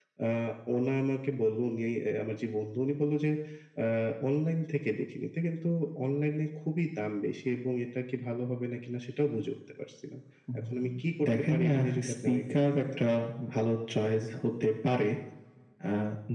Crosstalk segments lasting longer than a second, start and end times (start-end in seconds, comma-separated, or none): 11.4-12.8